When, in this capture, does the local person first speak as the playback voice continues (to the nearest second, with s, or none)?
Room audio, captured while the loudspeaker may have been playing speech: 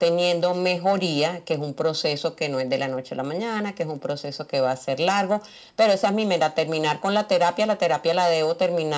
none